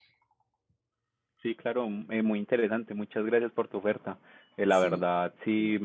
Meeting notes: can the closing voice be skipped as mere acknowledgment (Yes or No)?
Yes